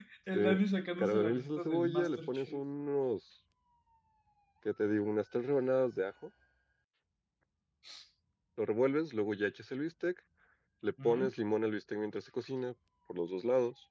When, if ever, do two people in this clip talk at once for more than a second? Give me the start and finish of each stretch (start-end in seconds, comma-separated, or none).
1.0-2.6